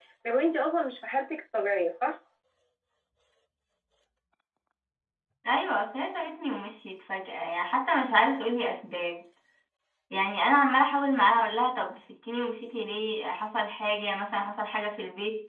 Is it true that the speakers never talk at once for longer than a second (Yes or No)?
Yes